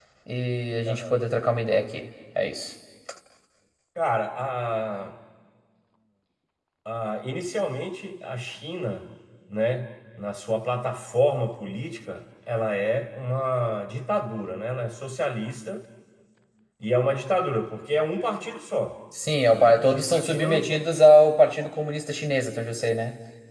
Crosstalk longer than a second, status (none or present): present